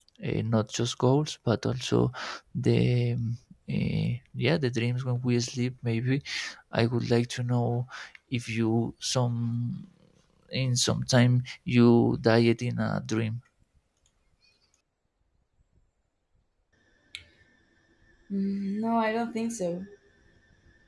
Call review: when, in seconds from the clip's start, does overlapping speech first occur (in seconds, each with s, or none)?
none